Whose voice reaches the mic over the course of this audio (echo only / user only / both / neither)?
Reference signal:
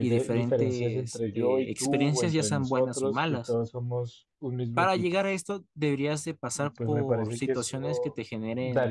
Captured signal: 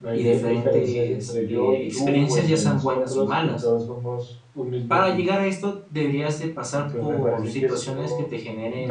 echo only